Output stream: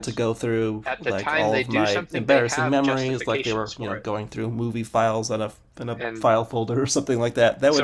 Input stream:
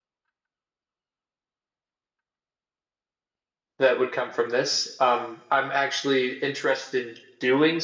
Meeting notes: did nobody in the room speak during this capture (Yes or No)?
No